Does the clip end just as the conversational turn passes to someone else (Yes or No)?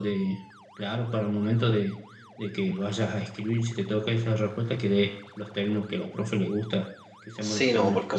Yes